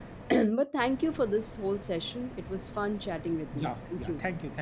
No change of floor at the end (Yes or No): No